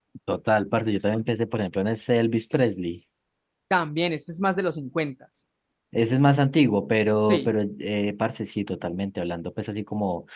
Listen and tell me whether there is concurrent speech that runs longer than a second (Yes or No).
No